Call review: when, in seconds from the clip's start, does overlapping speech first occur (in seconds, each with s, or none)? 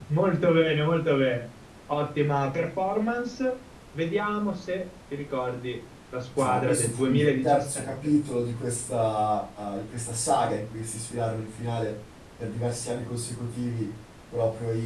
6.4 s